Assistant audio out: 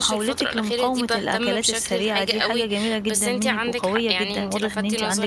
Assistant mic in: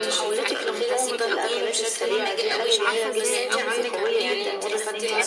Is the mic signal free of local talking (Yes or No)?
No